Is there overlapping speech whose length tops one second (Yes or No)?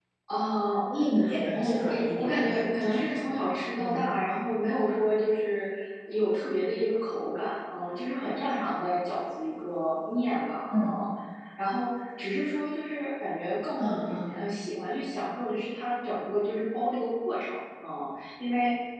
Yes